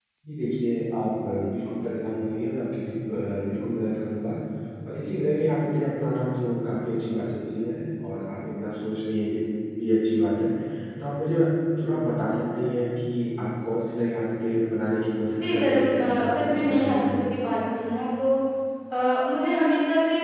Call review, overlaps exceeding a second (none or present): present